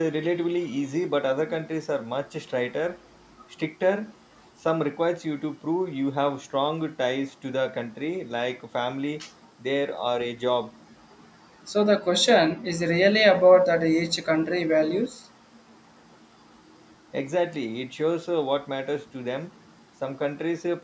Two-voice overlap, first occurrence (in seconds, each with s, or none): none